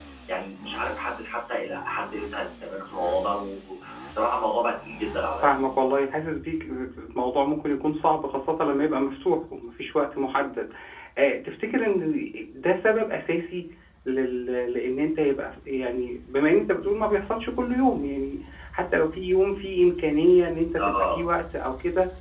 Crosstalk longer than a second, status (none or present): none